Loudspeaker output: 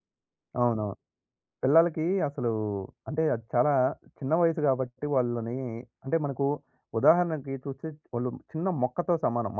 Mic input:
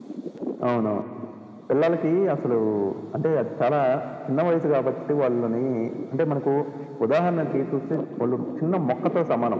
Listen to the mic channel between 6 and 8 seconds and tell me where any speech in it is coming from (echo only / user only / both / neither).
echo only